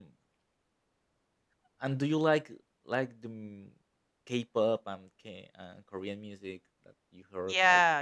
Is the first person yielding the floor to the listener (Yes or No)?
Yes